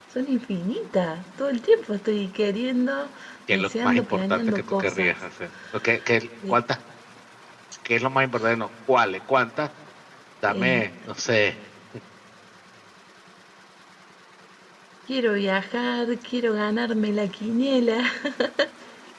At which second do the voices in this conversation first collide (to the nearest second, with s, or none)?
4 s